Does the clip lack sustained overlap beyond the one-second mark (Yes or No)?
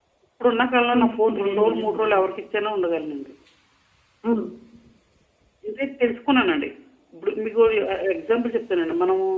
No